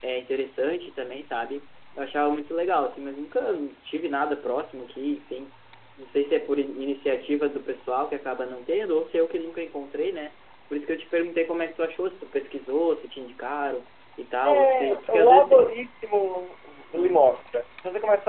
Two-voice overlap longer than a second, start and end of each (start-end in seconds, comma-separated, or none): 14.4-15.7